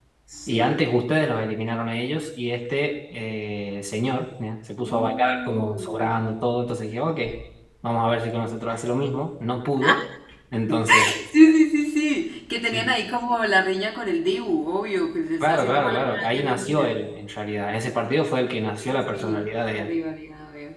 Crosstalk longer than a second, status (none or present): present